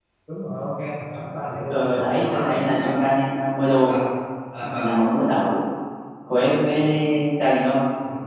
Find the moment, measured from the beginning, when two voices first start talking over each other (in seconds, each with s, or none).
1.7 s